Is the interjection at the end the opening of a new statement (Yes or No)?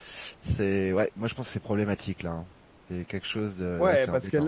Yes